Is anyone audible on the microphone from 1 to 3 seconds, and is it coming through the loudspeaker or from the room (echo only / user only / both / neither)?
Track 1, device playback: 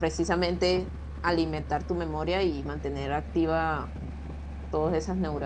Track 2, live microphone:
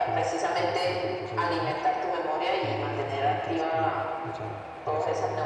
both